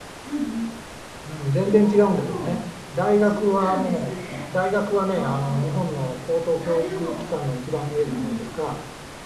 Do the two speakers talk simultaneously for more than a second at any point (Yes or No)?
Yes